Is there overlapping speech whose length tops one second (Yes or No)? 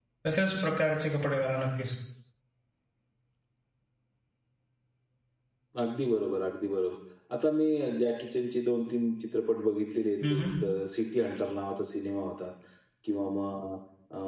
No